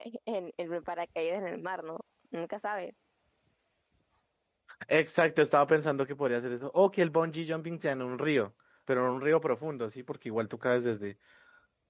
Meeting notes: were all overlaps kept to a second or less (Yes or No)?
Yes